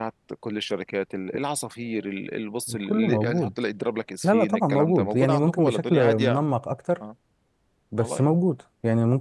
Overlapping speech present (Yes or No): Yes